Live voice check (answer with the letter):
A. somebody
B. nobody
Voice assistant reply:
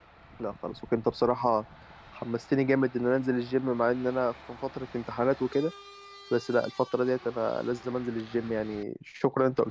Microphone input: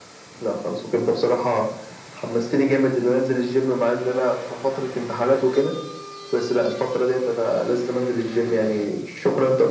B